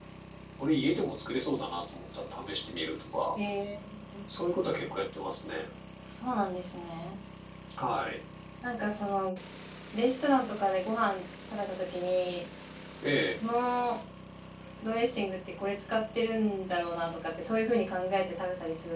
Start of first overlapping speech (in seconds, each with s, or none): none